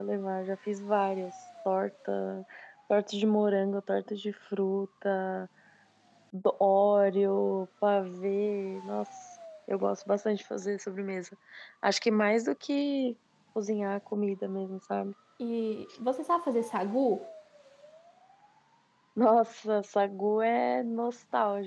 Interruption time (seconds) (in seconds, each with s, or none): none